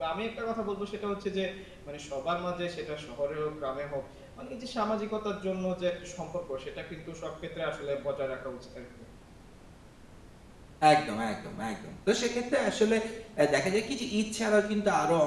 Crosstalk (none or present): none